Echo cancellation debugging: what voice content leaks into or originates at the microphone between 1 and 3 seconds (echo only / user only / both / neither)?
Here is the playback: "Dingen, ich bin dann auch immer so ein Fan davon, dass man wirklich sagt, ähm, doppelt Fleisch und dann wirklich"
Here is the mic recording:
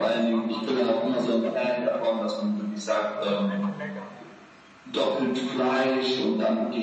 both